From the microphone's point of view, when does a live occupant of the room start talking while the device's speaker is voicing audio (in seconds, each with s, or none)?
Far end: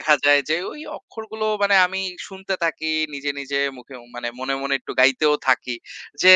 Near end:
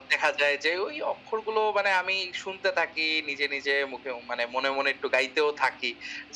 none